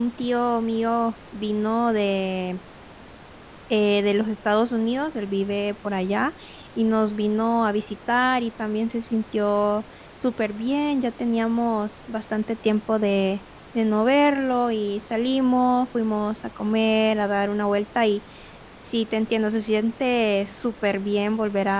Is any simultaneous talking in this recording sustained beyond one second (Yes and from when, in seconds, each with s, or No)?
No